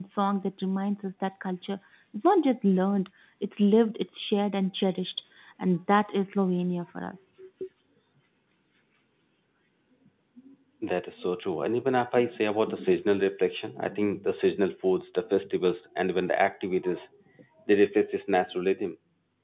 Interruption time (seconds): none

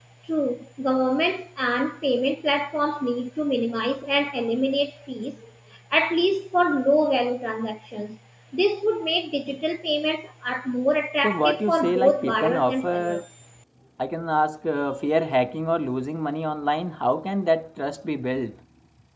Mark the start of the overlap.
11.2 s

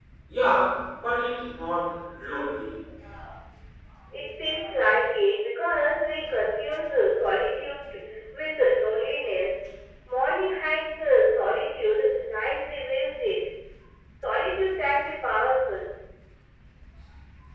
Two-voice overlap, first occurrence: none

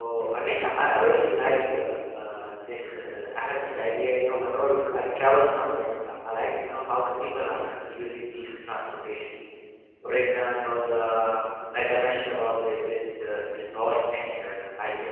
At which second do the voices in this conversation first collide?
none

